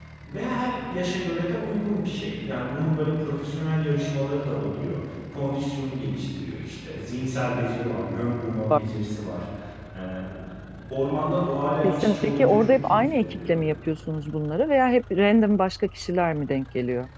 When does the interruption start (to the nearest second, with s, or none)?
12 s